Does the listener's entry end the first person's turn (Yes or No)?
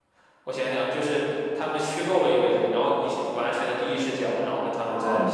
Yes